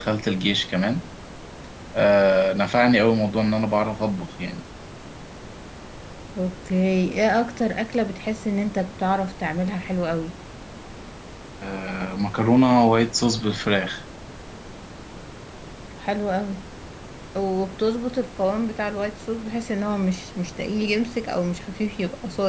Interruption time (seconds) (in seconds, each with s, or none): none